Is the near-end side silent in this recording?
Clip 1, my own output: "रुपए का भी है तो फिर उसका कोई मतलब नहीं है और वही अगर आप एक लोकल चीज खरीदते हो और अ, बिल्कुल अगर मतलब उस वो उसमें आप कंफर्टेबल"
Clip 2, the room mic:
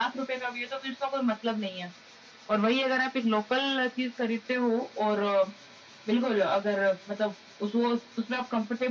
Yes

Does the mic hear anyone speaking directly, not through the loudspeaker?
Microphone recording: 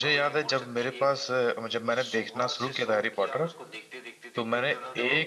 Yes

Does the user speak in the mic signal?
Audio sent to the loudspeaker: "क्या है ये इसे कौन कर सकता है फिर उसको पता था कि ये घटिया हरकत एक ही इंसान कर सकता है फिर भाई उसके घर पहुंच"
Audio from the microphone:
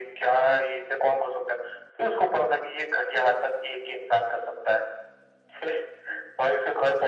No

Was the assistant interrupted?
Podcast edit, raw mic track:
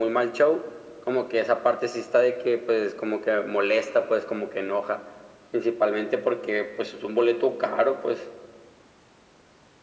No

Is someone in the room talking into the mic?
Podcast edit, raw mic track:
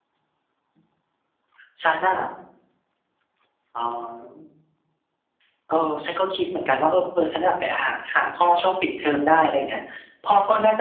No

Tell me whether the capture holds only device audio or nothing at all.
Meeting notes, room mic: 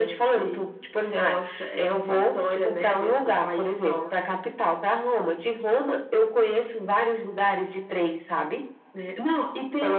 Yes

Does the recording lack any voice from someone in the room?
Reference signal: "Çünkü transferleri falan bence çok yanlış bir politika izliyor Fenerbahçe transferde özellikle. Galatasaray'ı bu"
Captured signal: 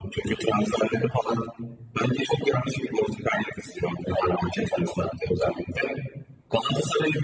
Yes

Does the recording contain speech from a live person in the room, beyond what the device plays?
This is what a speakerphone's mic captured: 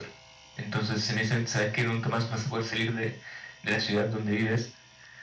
No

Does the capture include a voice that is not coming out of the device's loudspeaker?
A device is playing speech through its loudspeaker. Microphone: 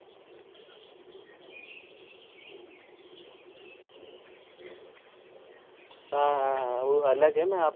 Yes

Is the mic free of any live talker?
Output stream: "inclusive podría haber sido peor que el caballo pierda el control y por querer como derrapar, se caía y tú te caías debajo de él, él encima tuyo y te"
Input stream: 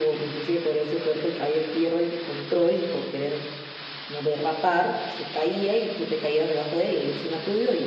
Yes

